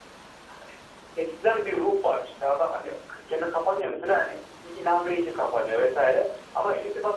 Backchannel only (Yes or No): Yes